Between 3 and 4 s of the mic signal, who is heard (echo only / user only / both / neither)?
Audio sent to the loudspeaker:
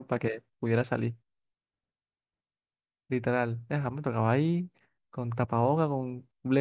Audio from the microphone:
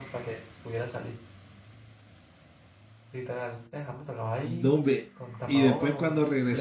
echo only